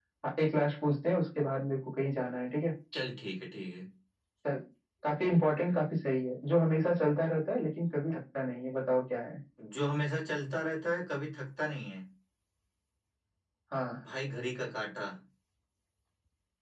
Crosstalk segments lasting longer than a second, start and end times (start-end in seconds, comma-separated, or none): none